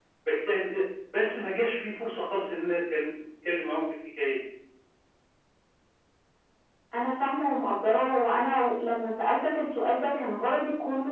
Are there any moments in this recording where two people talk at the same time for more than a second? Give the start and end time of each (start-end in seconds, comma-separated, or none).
none